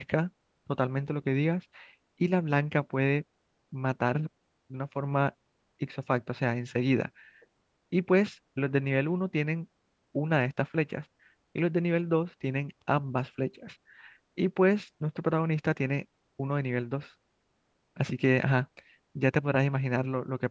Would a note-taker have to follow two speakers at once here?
No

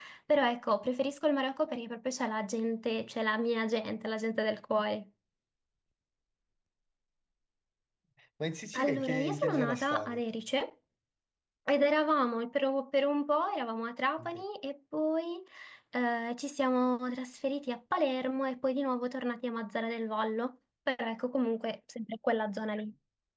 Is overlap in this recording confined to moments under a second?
No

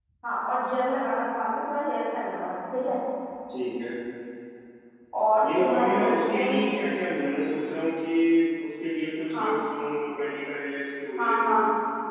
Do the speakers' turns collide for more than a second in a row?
Yes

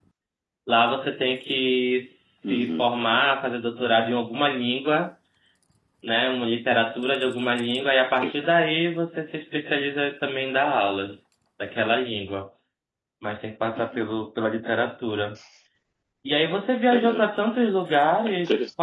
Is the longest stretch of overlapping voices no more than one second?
Yes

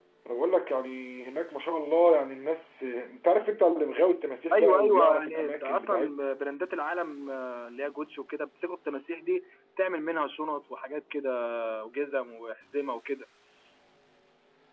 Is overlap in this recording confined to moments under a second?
No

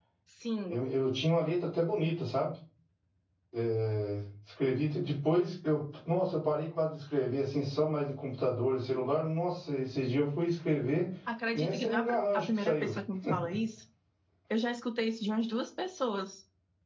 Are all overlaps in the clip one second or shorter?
No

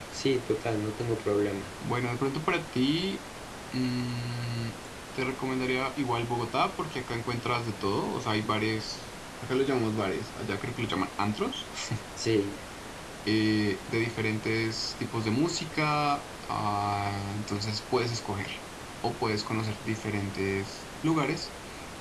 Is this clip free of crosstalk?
Yes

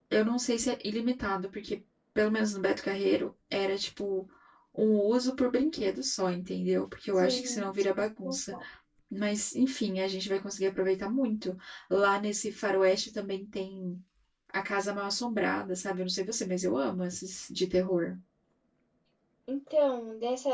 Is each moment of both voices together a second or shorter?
No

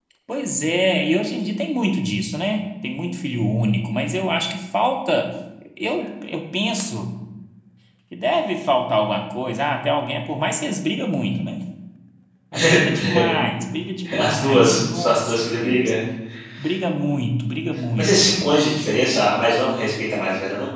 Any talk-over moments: Yes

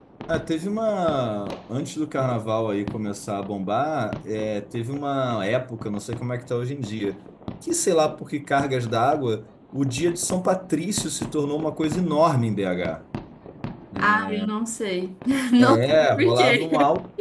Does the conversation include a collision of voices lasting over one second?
Yes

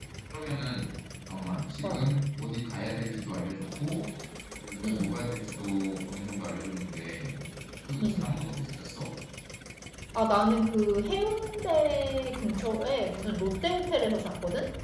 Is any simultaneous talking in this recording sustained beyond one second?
No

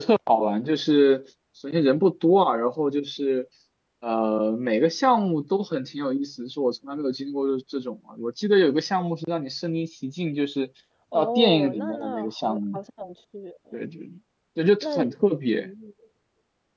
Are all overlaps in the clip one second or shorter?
No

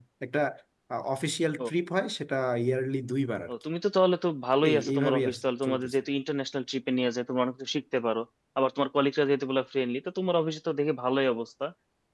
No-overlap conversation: No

